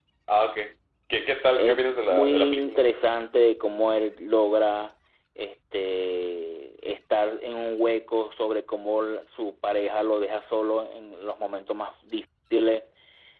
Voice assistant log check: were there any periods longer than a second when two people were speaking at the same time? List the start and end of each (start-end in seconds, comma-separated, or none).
1.5-2.8